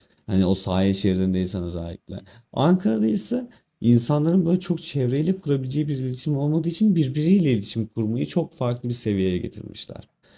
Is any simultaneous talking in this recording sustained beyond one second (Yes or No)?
No